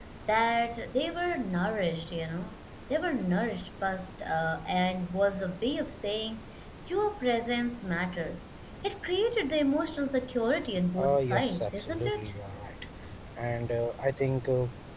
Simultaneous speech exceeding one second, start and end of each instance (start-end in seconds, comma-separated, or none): 11.0-12.3